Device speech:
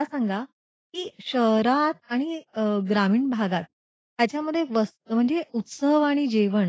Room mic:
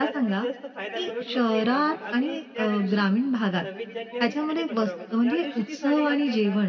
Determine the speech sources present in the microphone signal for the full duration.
both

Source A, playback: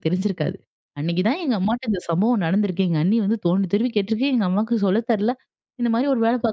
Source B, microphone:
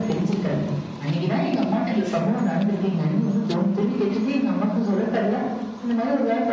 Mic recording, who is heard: echo only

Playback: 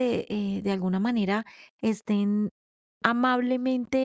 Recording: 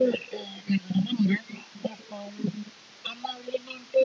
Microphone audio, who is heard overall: echo only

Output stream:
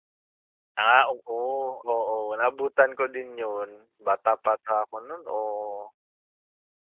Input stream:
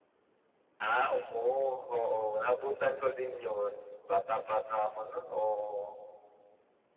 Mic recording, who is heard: echo only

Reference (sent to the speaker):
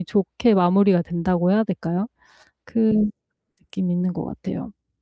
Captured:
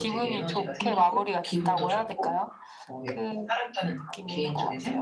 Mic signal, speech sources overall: both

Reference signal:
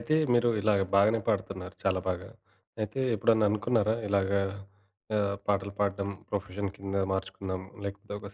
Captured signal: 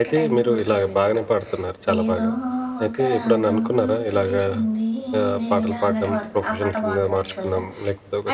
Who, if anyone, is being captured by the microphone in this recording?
both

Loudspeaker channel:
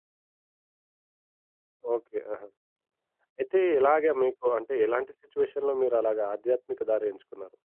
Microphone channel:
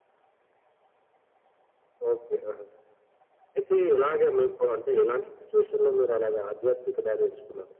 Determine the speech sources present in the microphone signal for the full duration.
echo only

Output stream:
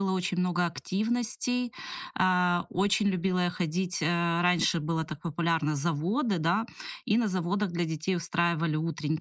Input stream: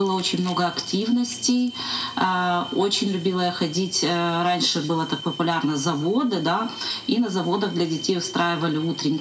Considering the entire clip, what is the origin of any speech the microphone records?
echo only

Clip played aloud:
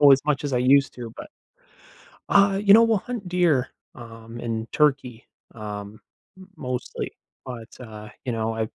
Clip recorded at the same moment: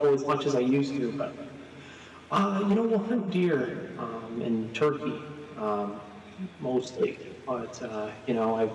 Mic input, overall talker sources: echo only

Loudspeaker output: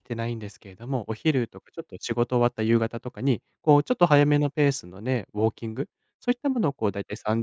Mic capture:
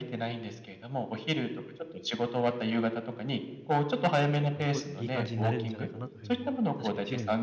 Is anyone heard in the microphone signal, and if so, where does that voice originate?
both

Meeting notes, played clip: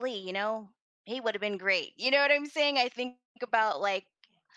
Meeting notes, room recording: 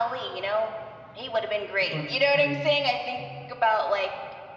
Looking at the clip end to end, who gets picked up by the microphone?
both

